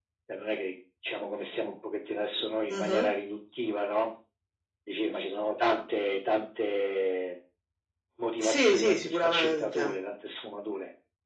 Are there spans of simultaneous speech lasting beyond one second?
Yes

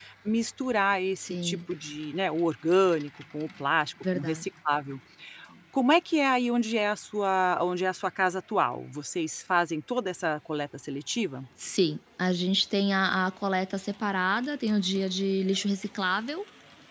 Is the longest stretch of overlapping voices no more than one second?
Yes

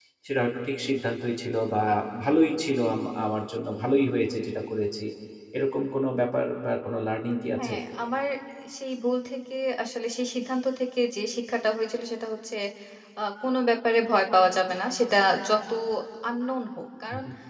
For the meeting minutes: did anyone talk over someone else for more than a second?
No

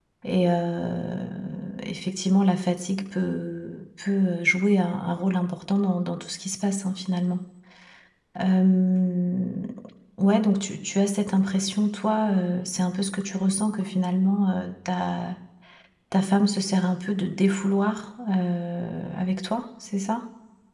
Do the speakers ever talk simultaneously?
No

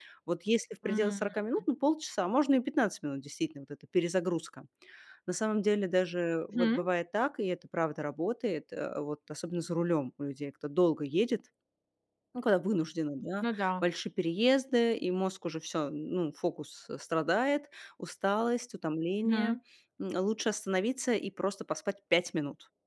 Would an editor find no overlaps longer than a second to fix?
Yes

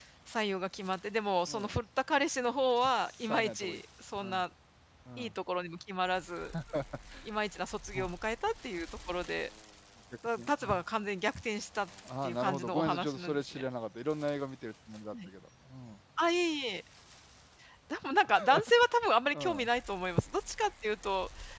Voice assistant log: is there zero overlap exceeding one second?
No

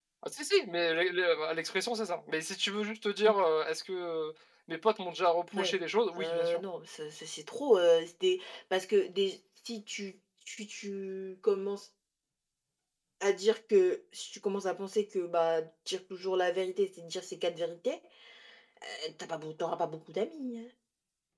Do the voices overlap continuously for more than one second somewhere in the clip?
No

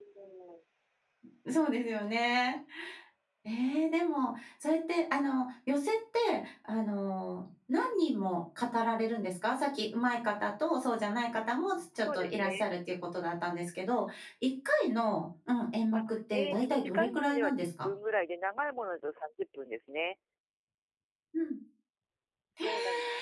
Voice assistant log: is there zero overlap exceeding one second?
No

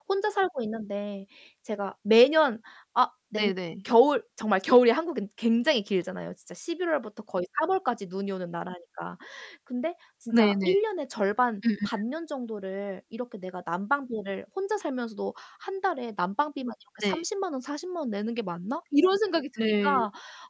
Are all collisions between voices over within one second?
Yes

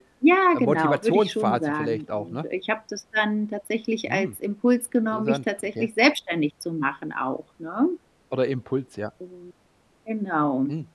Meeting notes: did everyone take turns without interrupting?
No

